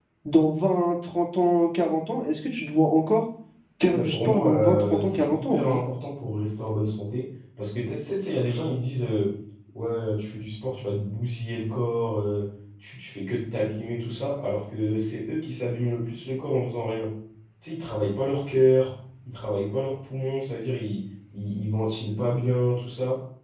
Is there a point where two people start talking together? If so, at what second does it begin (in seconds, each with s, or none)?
3.9 s